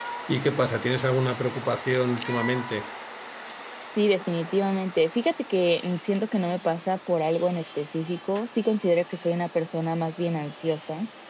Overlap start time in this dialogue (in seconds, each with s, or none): none